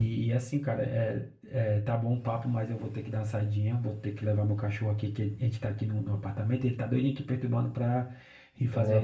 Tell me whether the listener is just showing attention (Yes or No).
Yes